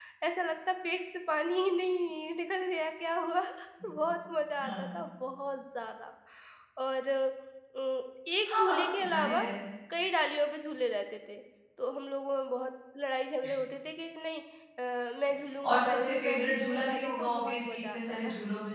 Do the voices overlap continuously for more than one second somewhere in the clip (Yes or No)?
Yes